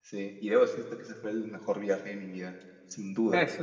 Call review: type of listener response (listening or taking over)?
taking over